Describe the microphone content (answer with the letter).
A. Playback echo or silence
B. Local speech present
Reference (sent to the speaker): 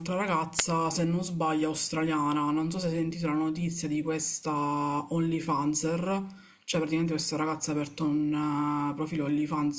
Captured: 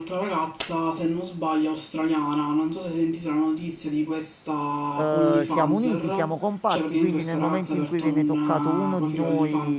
B